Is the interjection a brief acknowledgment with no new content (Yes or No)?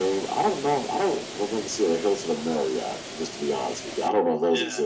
No